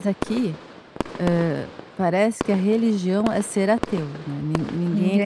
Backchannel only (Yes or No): Yes